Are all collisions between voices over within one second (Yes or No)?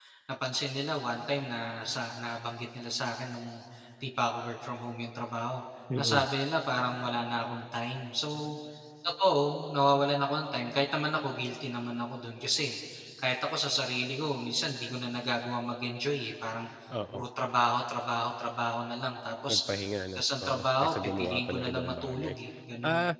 No